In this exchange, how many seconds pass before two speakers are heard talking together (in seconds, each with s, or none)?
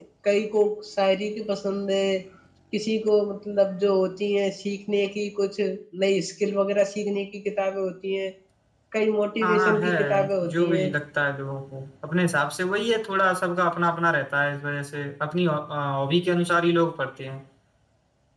9.4 s